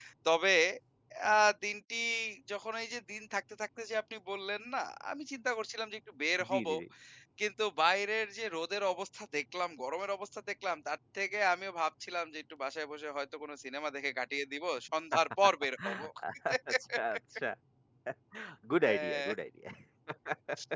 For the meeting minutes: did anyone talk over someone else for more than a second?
No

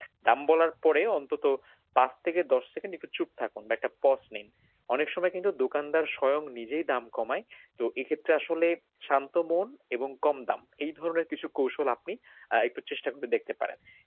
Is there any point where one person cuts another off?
No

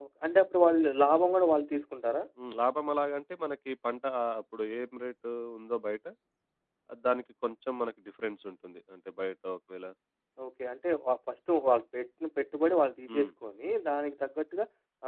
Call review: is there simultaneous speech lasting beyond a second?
No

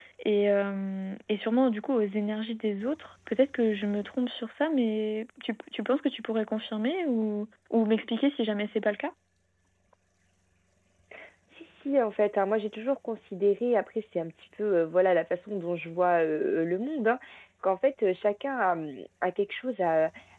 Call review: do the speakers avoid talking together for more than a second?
Yes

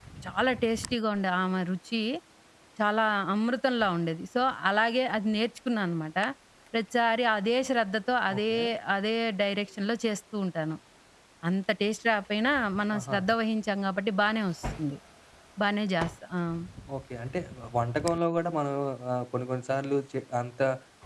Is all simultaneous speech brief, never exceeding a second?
Yes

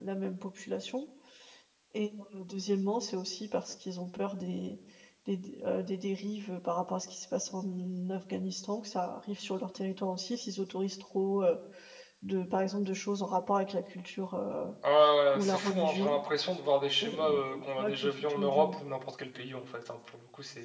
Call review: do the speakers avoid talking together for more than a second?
No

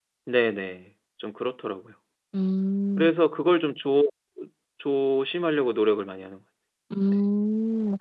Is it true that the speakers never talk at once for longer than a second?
Yes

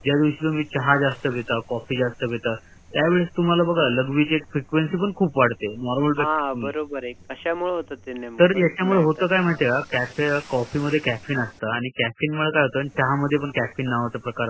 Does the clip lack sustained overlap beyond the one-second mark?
No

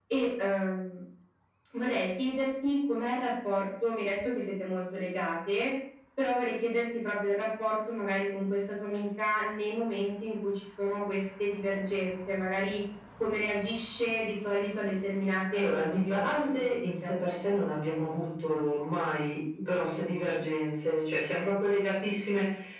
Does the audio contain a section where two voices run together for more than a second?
Yes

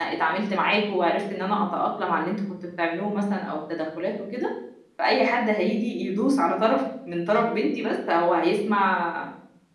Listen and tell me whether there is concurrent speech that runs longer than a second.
No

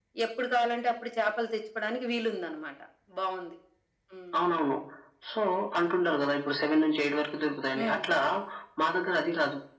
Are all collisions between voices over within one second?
Yes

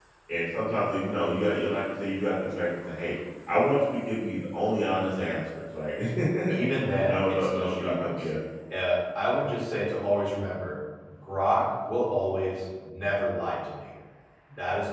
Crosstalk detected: Yes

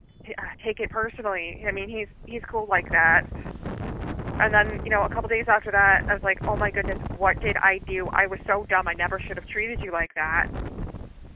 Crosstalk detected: No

